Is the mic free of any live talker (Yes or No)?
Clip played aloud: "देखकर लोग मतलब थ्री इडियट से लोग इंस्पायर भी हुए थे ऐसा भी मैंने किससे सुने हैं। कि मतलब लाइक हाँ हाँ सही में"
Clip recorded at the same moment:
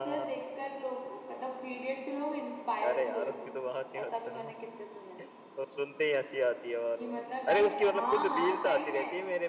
No